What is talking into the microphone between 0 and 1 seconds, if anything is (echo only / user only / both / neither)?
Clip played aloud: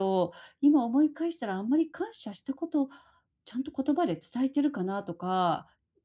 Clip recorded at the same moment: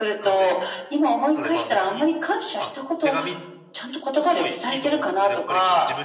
both